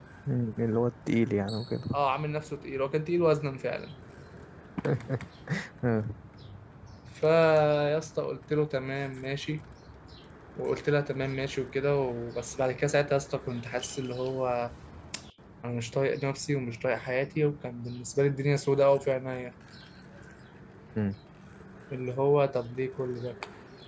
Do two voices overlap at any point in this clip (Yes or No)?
No